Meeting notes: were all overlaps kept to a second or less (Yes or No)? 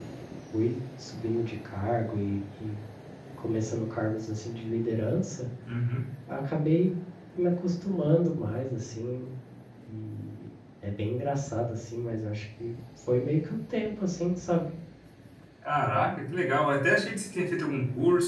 Yes